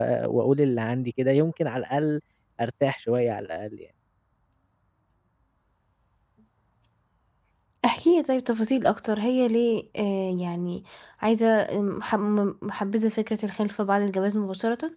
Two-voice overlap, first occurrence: none

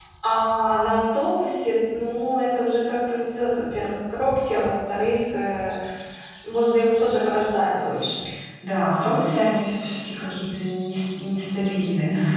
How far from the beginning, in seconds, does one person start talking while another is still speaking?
none

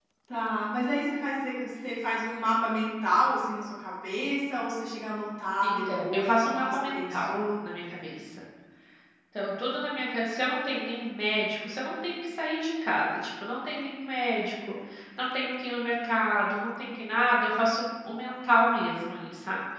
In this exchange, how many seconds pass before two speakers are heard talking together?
5.6 s

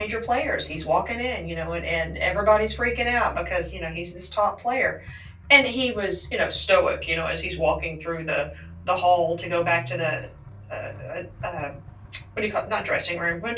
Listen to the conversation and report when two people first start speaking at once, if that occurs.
none

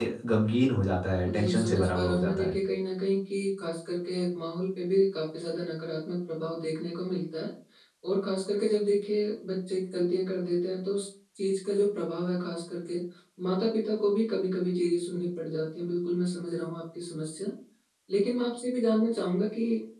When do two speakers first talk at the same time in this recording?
1.3 s

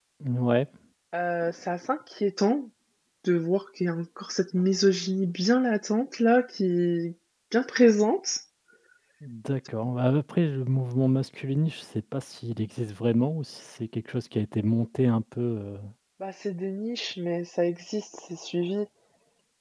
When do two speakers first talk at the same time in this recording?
none

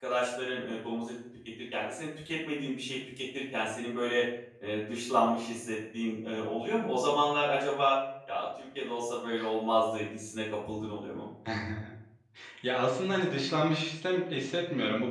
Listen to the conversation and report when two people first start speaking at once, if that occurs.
none

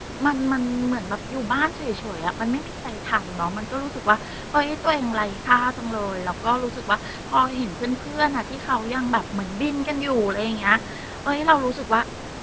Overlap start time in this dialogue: none

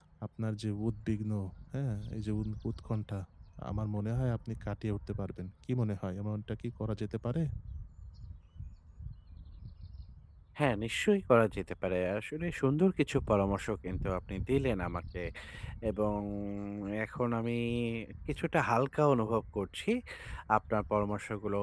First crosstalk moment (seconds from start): none

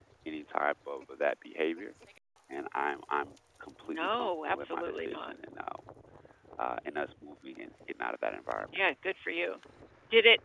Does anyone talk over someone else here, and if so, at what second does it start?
3.9 s

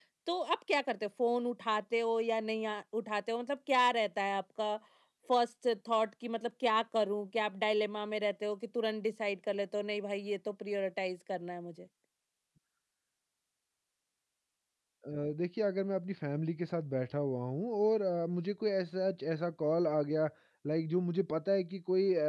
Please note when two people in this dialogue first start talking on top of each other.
none

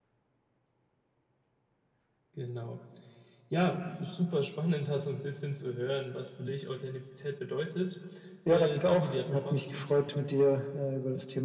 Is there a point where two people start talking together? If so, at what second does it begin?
8.5 s

